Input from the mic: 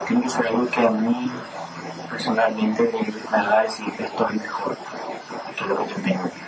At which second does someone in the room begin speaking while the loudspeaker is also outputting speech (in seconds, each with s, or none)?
none